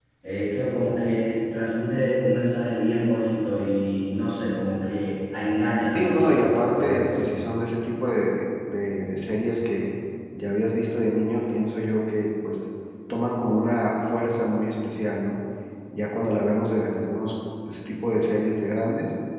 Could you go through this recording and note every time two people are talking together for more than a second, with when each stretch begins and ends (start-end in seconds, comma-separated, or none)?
5.8-7.3